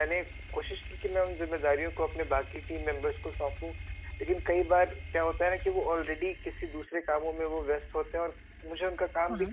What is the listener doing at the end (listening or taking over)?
listening